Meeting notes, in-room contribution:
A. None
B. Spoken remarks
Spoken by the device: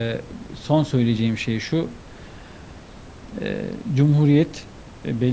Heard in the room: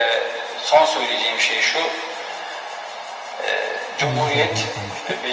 B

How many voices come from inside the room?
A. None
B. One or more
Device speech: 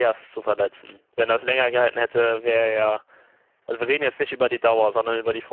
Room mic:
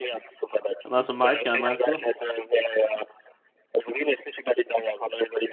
B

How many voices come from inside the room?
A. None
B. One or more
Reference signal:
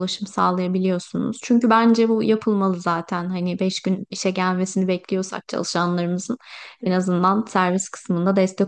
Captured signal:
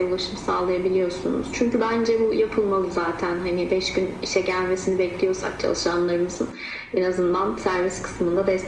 A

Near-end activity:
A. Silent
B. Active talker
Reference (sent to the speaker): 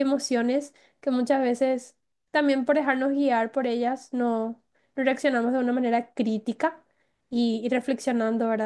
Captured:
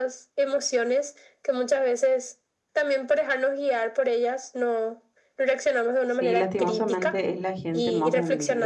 B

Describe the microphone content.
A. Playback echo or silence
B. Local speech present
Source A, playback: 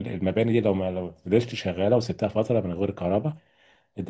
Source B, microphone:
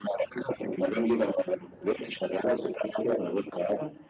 A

